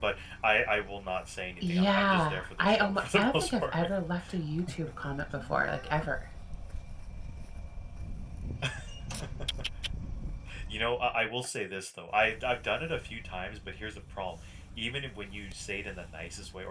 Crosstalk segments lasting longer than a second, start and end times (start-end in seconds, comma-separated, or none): 1.7-3.7